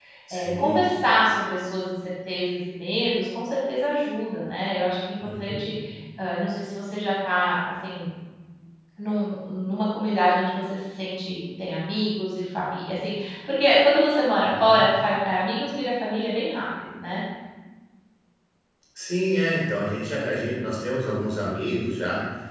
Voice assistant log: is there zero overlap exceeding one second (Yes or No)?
Yes